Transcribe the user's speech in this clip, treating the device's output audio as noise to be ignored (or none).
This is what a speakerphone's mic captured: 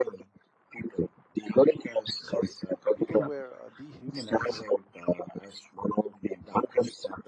sorry, people were uh, dehumanized